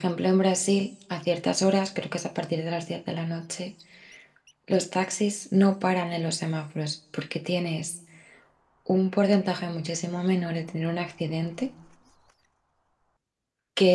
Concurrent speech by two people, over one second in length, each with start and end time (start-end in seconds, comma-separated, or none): none